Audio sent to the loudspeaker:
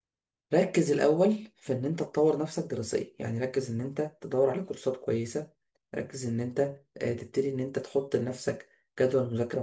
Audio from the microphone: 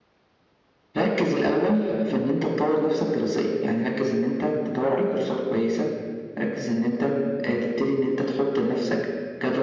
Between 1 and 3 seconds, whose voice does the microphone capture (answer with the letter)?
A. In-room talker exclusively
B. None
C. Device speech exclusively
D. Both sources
C